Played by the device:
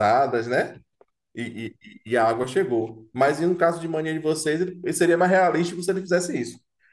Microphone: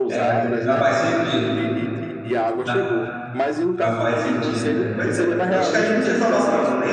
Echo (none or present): present